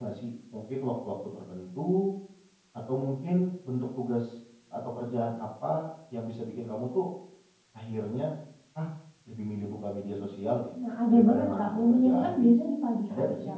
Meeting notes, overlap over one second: present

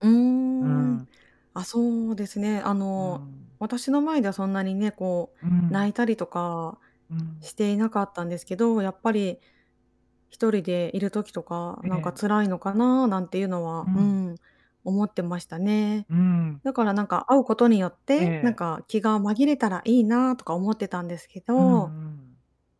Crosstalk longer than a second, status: none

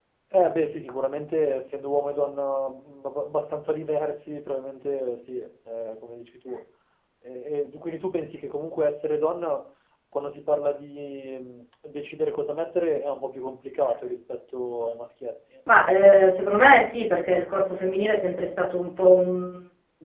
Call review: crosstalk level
none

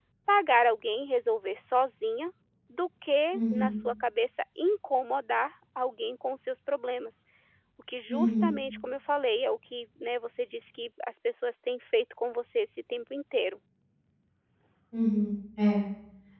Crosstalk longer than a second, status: none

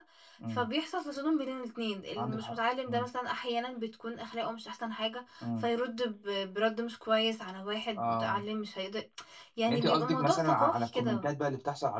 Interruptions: present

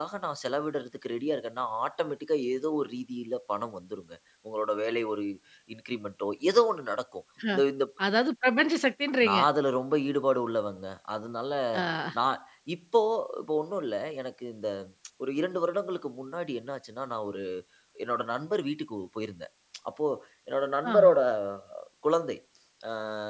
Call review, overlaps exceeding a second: none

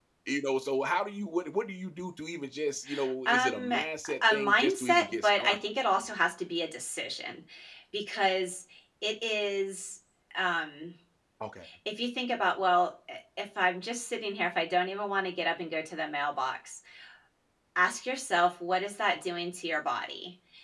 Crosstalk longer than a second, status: present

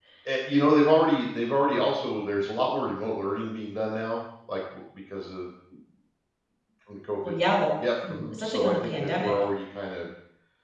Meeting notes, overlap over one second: present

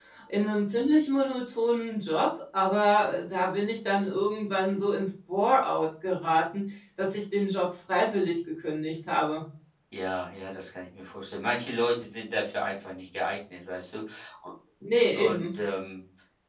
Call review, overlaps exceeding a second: none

